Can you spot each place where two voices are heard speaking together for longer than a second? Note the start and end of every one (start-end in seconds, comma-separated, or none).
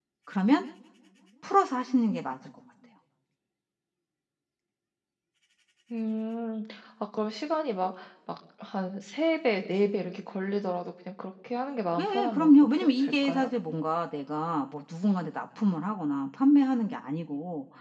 12.0-13.5